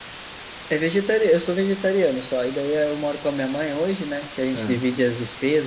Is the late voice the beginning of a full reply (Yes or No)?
No